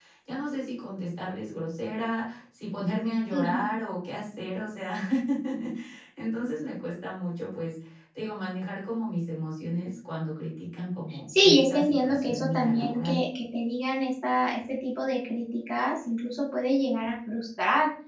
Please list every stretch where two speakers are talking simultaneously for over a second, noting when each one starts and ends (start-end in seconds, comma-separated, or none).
11.4-13.2